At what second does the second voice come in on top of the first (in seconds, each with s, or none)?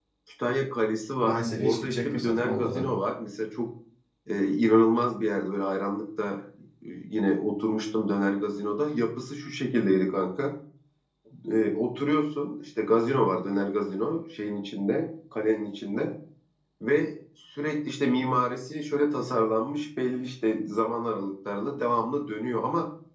1.2 s